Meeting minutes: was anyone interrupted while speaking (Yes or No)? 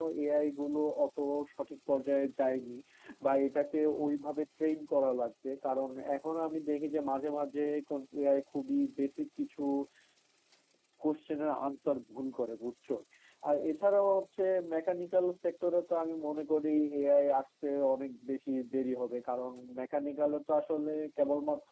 No